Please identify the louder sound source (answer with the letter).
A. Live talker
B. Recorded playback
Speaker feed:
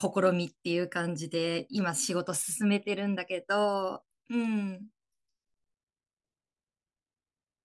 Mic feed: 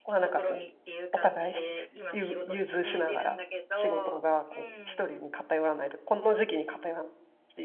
A